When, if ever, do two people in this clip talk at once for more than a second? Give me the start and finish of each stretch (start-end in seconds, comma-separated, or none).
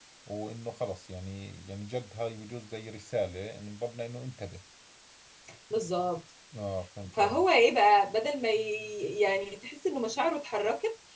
none